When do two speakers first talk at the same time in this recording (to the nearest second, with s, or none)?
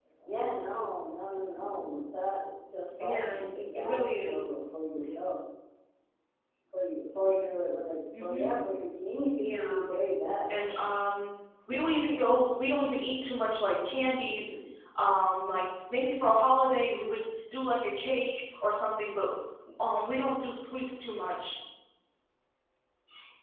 3 s